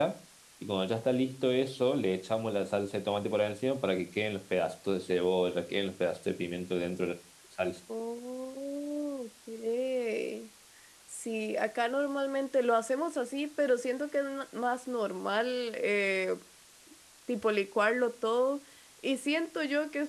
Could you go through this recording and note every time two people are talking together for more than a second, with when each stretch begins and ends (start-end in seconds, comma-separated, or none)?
none